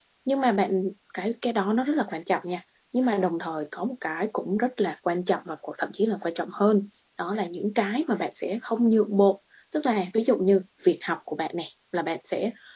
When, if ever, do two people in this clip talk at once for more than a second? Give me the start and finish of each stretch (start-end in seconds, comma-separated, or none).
none